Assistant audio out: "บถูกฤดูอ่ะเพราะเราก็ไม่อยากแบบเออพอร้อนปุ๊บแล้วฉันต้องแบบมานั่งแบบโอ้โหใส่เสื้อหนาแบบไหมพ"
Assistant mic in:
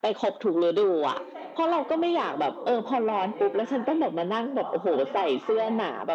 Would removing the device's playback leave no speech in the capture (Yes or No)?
No